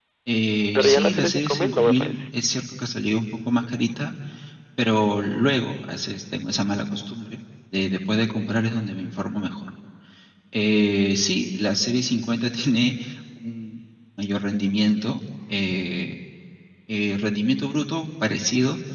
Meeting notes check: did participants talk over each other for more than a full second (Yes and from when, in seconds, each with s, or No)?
Yes, from 0.8 s